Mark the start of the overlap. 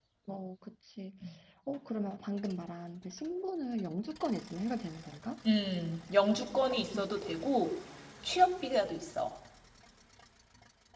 none

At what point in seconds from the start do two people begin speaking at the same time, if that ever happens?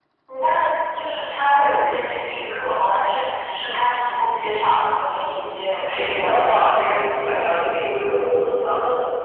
6 s

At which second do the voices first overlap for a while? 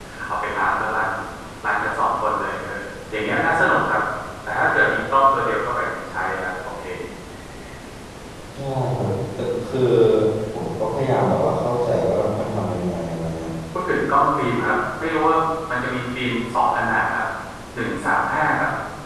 none

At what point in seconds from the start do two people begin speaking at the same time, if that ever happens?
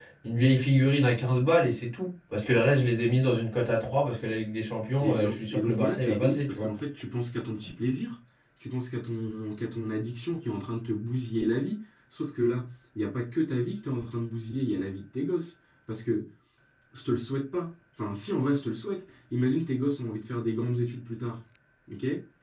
5 s

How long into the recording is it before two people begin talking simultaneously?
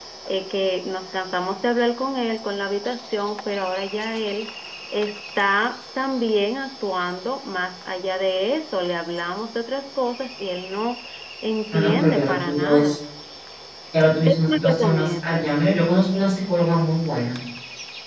12 s

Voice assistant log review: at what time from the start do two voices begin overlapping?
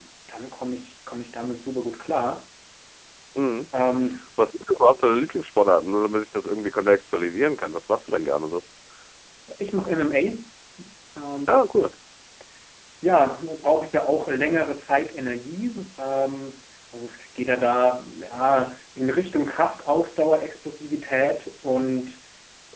none

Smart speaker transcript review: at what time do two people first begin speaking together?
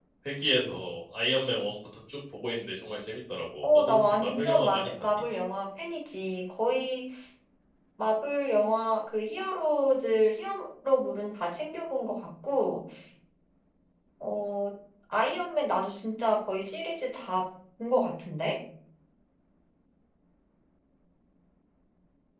4 s

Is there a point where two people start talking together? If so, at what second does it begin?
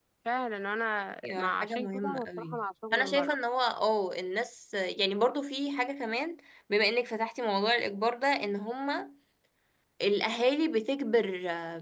1 s

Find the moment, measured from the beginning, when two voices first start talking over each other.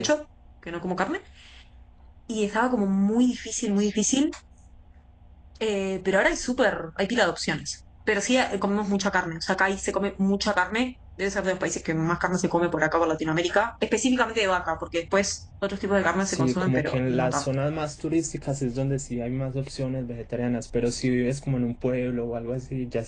16 s

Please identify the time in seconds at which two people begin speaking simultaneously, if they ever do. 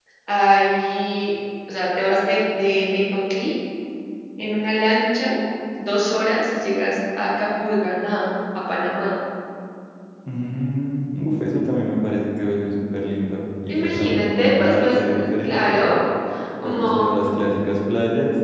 14 s

